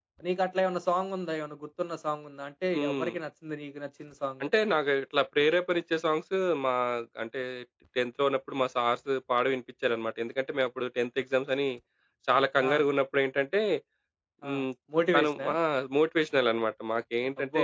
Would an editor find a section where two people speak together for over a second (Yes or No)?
No